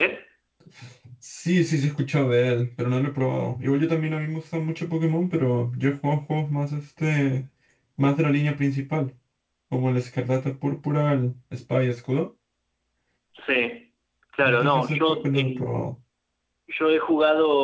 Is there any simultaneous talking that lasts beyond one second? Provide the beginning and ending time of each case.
14.5-15.7

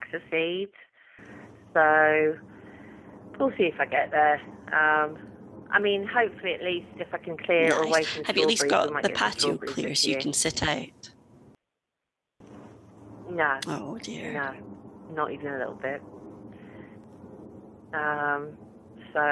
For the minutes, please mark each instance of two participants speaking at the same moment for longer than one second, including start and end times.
7.6-10.3

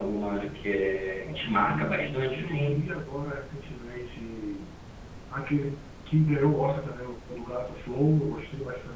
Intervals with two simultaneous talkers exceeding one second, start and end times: 1.2-2.9

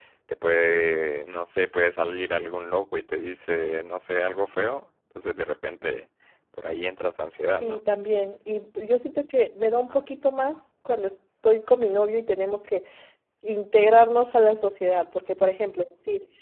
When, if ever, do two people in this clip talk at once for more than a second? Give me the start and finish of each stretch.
none

